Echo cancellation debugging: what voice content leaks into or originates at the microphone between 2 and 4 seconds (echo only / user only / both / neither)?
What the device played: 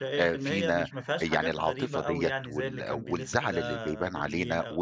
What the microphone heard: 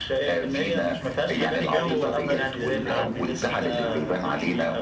both